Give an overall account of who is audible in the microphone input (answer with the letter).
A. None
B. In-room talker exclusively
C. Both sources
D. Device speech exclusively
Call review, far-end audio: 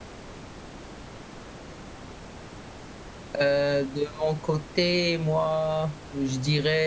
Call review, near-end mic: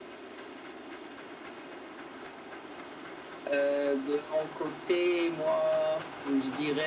D